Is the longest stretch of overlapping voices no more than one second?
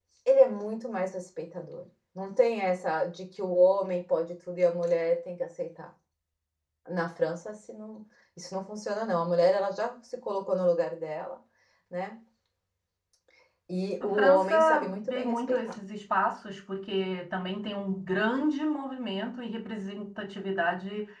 No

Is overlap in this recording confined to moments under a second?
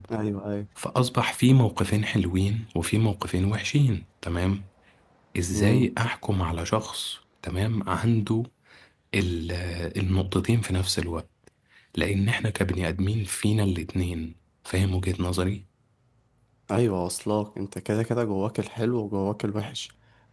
Yes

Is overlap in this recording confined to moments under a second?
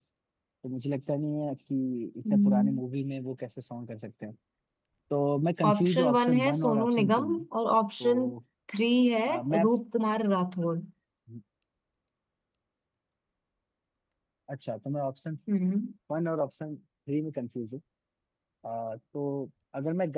No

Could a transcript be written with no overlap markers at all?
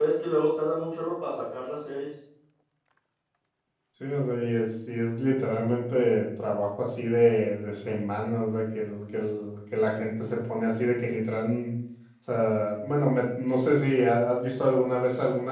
Yes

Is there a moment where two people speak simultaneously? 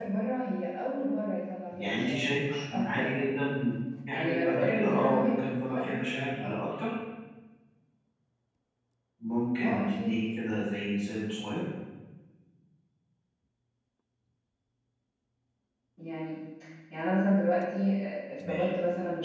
Yes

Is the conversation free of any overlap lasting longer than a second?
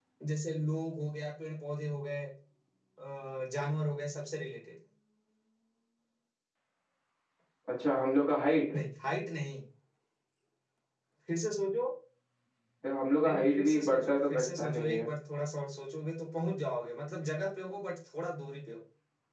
No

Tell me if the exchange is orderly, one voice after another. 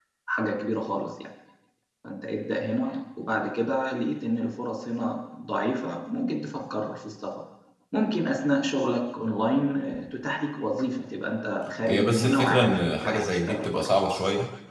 No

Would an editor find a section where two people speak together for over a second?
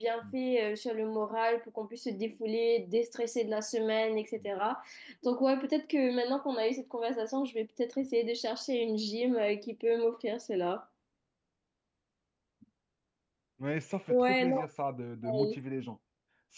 No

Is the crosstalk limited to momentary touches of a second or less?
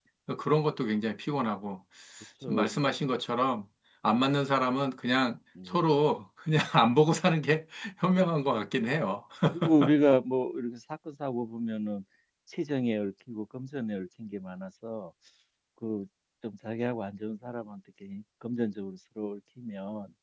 Yes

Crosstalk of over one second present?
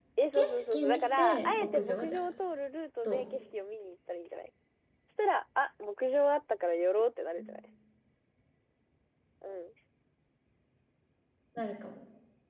Yes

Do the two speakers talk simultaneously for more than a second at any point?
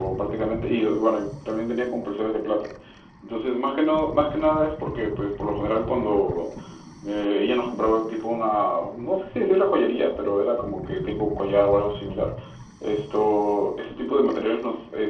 No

